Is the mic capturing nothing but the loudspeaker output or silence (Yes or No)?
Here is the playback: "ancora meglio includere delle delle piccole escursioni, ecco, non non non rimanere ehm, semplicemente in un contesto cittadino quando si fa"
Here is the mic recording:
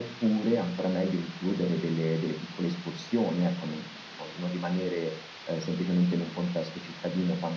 Yes